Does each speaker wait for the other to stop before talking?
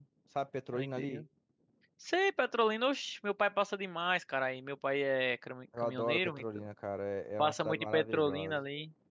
No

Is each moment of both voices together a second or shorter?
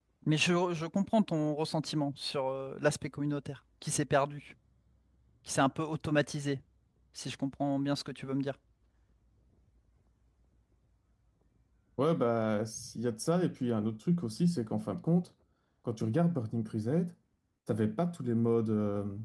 Yes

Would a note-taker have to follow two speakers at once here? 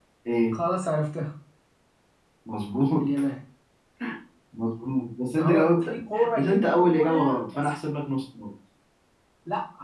Yes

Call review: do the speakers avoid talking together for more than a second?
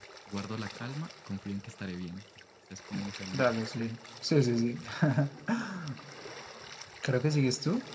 Yes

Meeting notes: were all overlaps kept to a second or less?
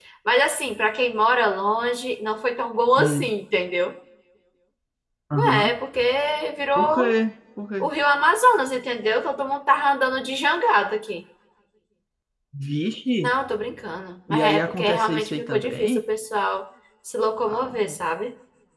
No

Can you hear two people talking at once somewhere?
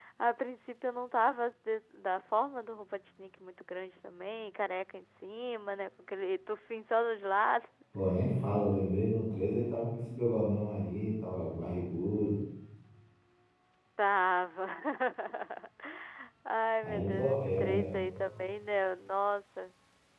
Yes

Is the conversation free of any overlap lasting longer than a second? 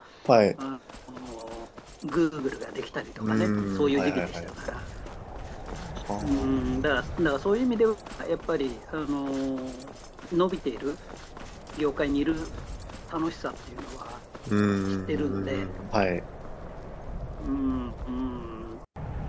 No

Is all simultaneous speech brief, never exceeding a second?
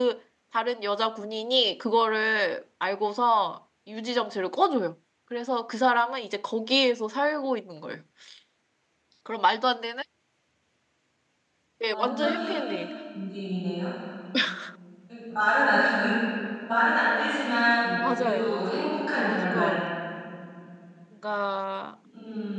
No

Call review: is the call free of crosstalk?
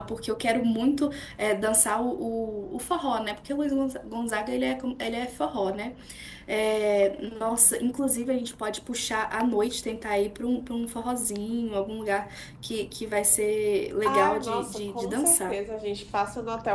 No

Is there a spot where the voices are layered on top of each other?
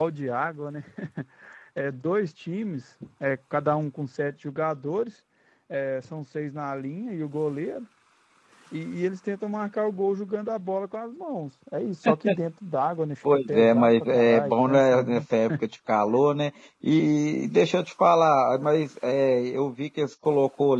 Yes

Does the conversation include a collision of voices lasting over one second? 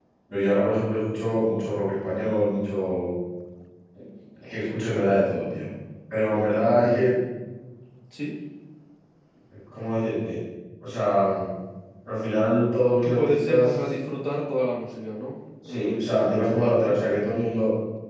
Yes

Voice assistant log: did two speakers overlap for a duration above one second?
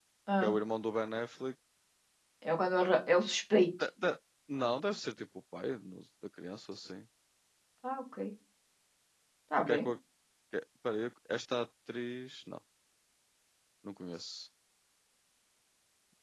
No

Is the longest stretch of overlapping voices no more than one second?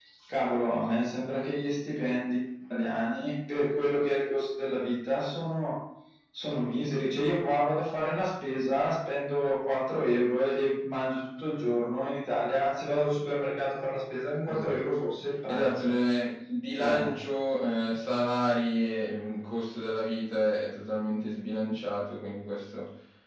Yes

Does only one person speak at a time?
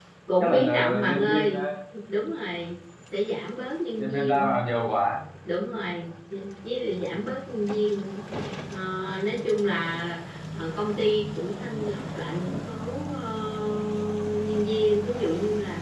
No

